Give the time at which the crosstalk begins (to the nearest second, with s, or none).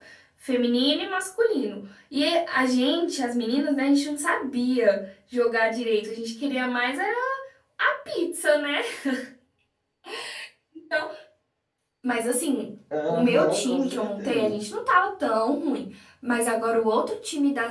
13 s